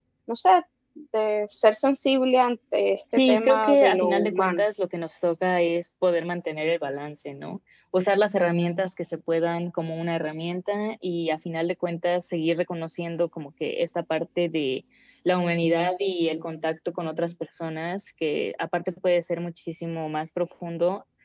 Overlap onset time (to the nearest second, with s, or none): 3 s